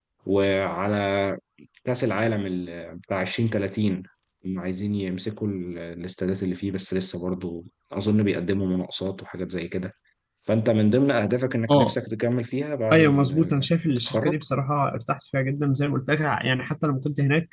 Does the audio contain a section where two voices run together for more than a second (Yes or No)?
Yes